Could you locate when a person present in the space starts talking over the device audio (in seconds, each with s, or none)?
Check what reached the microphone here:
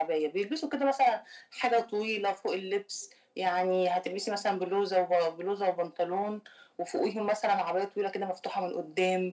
none